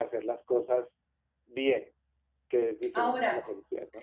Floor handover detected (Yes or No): Yes